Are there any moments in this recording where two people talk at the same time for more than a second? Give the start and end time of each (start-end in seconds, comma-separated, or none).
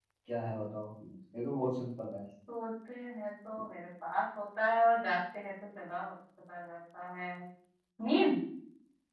none